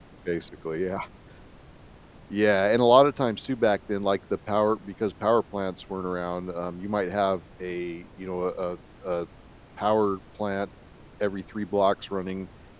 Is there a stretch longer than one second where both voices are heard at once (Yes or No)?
No